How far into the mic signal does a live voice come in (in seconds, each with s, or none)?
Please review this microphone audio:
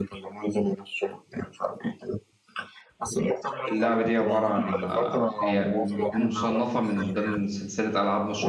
3.7 s